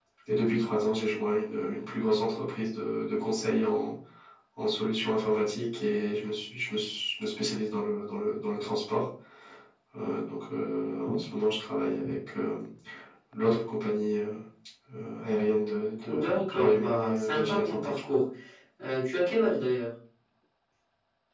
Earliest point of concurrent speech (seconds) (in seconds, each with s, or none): 16.1 s